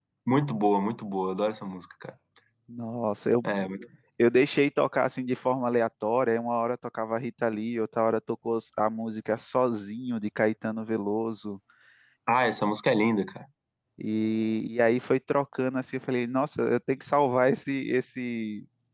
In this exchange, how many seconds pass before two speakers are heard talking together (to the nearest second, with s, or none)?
none